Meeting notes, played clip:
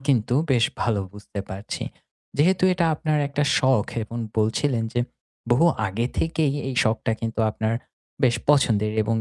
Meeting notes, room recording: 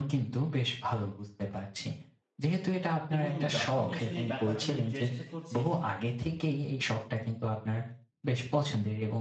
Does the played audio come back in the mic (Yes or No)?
Yes